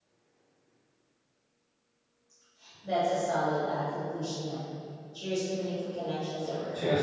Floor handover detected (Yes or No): Yes